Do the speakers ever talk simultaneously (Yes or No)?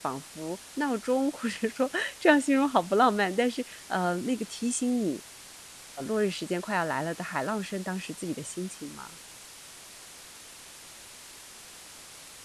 No